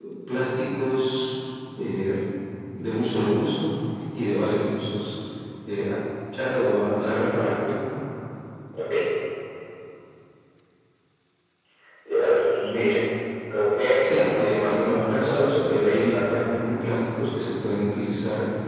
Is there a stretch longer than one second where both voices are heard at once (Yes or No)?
Yes